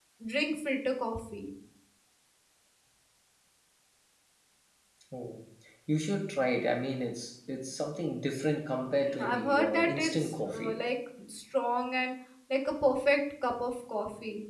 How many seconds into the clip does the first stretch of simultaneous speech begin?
9.0 s

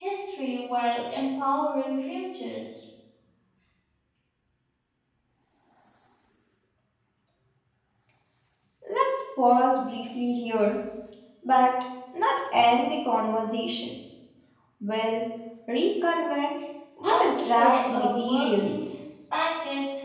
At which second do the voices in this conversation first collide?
17.0 s

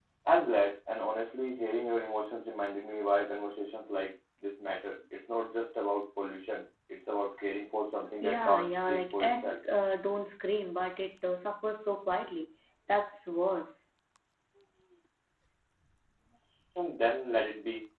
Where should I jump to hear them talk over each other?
8.2 s

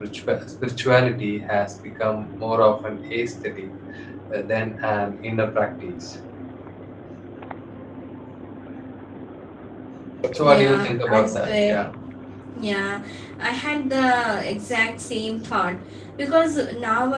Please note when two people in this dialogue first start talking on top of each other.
10.6 s

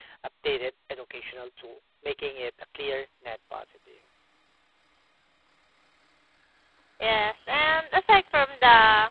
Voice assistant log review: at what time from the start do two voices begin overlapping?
none

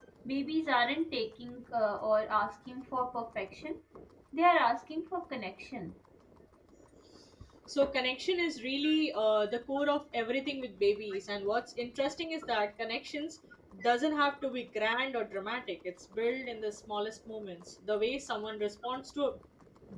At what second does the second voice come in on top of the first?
none

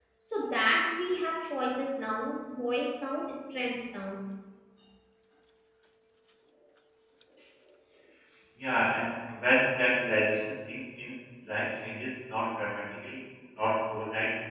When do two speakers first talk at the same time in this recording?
none

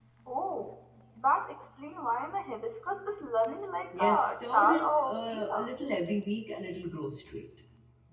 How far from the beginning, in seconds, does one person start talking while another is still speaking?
3.9 s

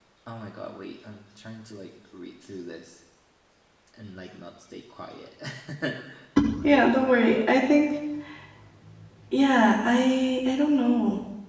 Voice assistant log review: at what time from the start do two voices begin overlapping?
none

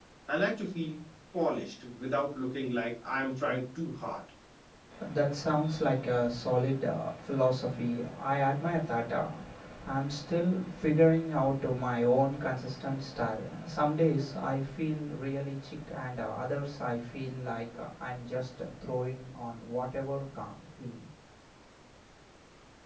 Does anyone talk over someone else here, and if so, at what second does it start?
none

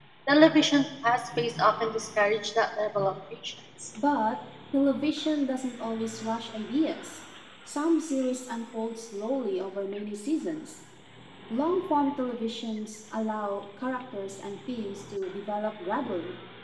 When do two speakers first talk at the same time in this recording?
none

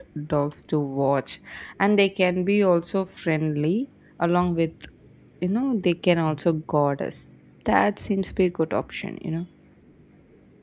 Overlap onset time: none

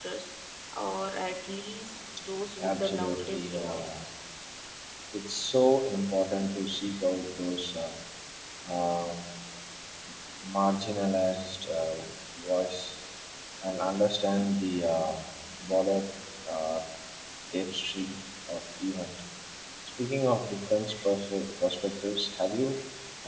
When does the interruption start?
2.6 s

